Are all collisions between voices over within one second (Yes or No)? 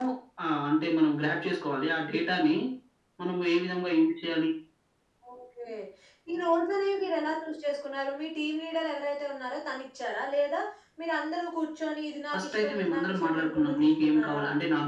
No